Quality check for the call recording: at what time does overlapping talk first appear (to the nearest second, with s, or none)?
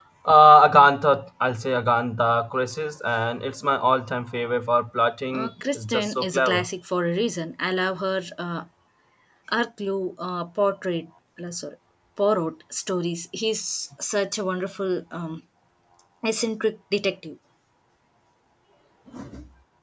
5 s